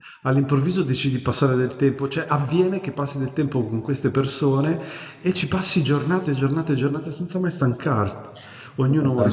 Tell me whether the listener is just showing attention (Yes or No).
Yes